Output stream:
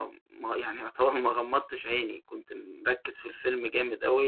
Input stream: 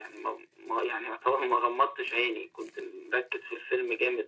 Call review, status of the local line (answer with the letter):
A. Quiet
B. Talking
A